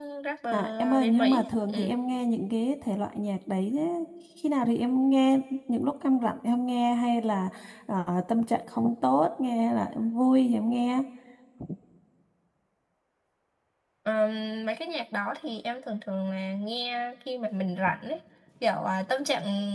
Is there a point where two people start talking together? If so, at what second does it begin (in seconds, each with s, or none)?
0.5 s